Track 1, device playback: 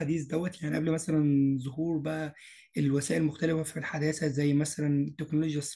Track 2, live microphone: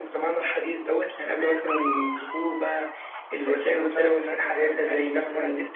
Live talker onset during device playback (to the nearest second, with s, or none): 3 s